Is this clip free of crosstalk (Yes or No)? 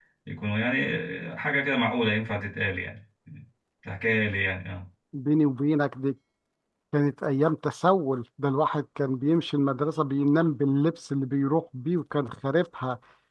Yes